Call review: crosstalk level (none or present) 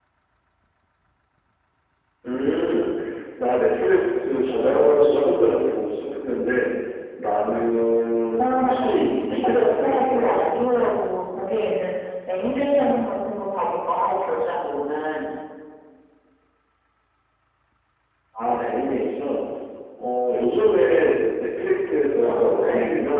present